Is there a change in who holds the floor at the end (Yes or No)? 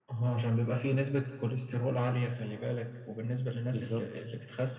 No